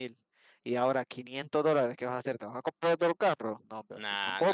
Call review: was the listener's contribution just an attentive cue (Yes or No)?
No